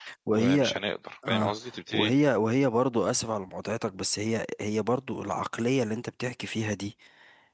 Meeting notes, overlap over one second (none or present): none